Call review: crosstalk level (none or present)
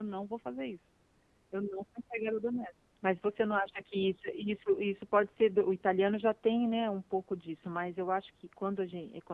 none